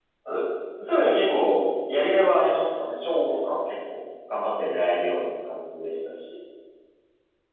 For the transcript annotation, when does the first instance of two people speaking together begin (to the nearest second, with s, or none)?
none